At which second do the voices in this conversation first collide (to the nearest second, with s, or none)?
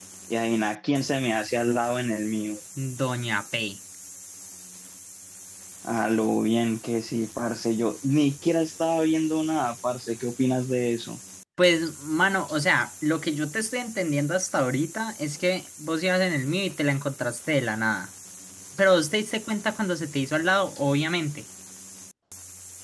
none